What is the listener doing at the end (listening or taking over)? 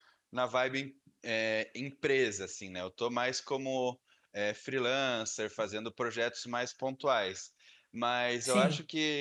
listening